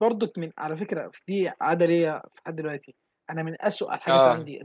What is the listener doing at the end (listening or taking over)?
listening